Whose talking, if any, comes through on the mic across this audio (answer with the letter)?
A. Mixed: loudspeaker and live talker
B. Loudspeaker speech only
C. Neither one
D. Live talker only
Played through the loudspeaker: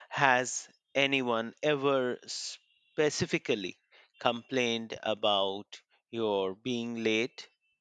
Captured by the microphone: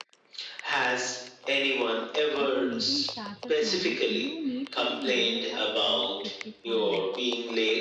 A